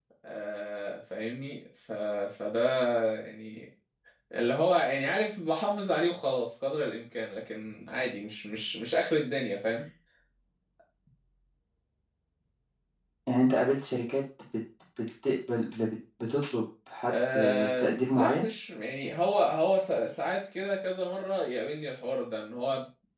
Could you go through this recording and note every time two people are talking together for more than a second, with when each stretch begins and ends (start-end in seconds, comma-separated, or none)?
17.1-18.5